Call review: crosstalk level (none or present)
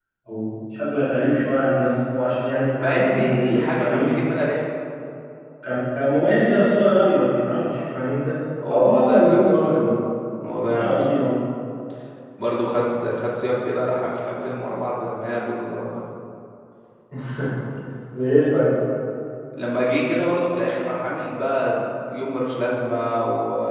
present